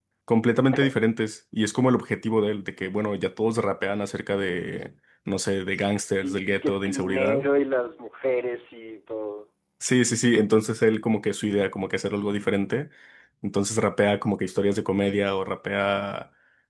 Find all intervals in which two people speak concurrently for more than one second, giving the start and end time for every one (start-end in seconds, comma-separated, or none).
6.1-7.5